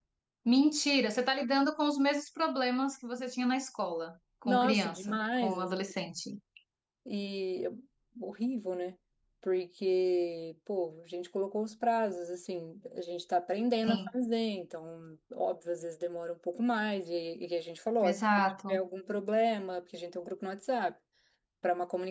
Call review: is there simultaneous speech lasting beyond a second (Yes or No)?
Yes